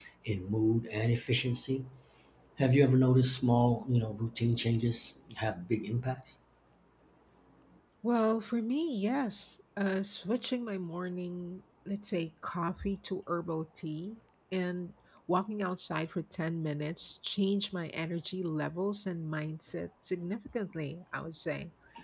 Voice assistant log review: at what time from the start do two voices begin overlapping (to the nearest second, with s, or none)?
none